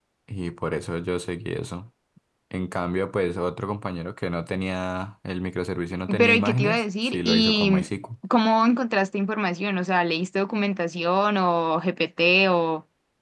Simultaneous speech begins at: 6.1 s

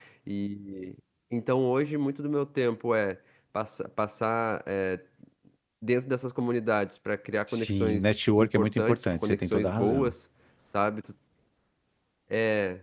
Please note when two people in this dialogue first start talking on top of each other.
7.5 s

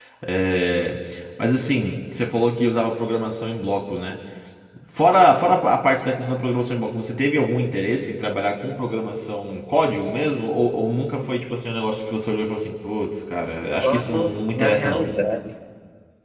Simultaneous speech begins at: 13.8 s

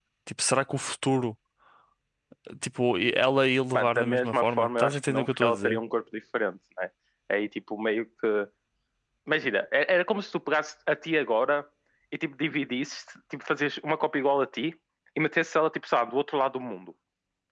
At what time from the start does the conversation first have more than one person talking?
3.7 s

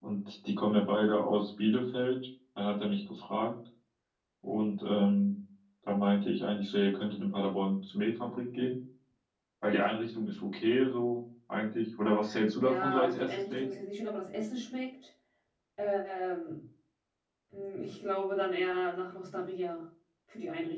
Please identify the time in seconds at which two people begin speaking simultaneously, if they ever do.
12.5 s

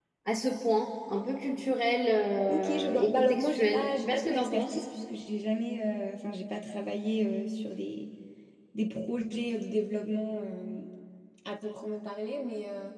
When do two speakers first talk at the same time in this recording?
2.5 s

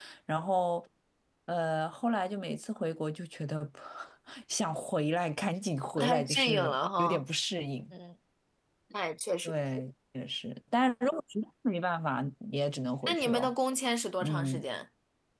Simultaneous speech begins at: 6.0 s

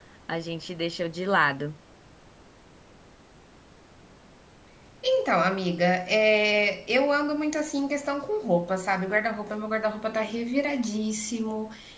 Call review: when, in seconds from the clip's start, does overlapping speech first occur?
none

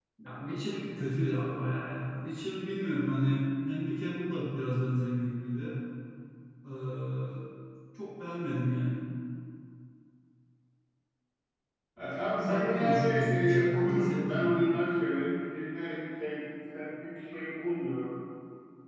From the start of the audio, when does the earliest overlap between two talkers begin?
12.4 s

